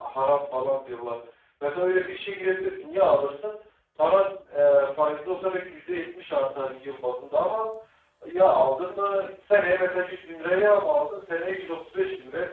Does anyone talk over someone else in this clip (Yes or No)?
No